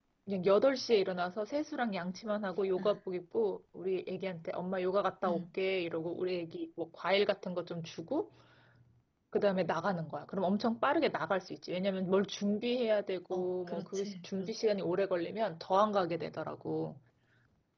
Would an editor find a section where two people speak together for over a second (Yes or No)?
Yes